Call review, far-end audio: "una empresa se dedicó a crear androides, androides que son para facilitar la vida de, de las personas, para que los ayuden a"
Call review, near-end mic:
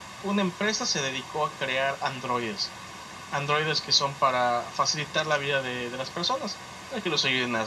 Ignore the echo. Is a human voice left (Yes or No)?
No